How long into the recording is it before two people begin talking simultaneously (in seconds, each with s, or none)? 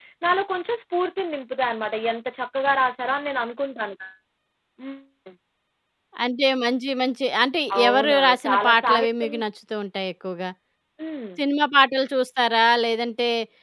7.7 s